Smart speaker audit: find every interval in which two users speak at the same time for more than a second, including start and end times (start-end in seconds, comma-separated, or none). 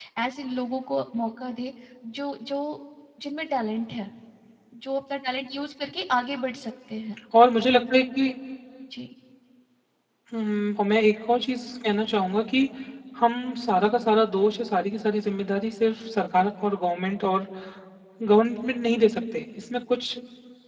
none